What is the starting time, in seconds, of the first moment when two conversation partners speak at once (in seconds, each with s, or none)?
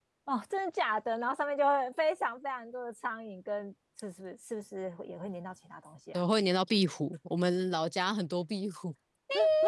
none